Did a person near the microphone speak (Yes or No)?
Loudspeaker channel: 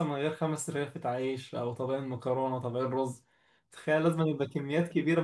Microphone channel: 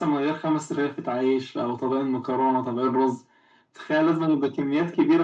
No